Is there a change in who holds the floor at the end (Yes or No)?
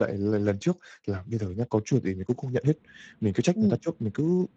No